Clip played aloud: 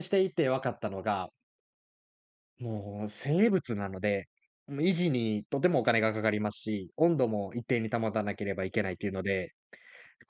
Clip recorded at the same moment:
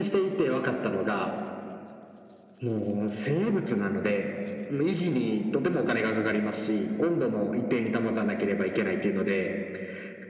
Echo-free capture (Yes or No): No